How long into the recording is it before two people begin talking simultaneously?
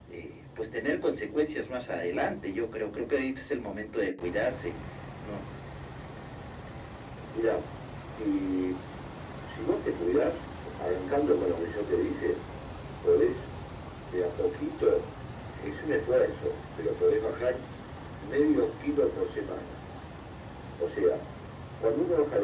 none

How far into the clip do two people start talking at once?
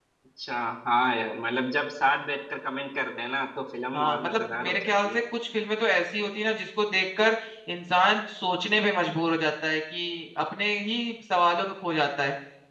3.9 s

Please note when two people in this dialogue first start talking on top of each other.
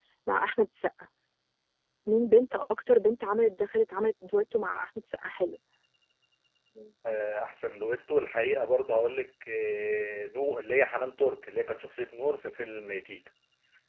none

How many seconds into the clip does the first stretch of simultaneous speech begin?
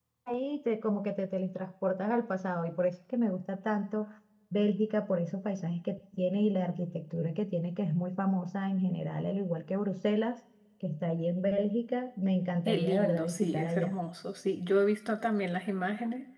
12.7 s

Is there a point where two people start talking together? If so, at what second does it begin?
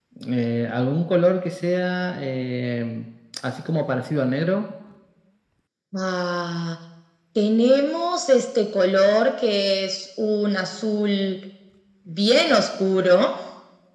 none

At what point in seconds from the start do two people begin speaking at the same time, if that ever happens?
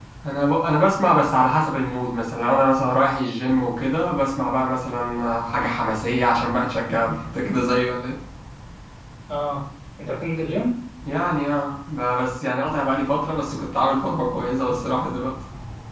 none

